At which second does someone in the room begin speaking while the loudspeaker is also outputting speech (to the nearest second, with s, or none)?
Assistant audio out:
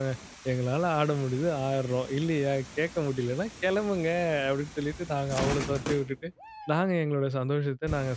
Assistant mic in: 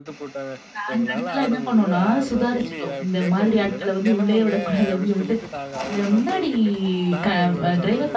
1 s